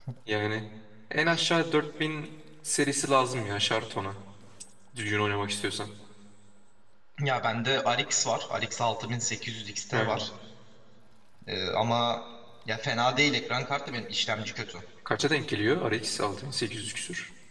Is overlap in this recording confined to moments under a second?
Yes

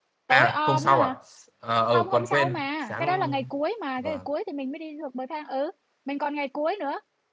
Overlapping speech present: Yes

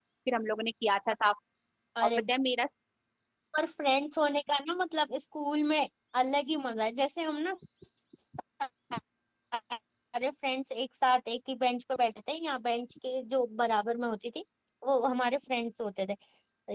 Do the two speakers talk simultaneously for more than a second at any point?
No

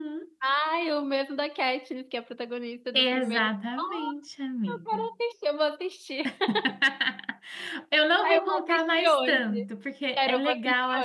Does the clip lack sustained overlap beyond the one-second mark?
No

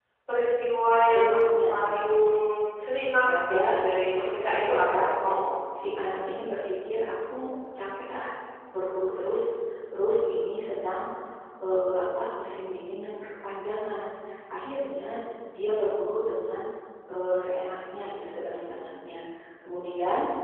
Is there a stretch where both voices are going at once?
Yes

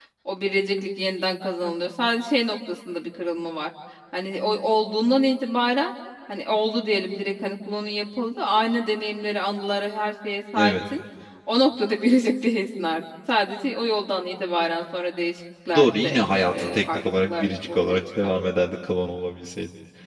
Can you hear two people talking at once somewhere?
Yes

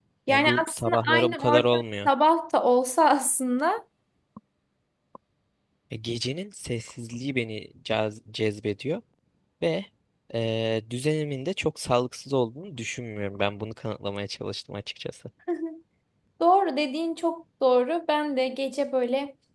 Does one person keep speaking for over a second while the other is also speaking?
Yes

